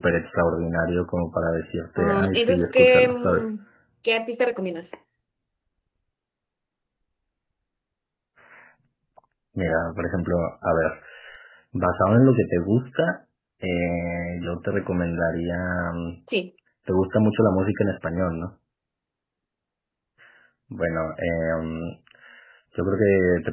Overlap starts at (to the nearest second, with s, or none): 2 s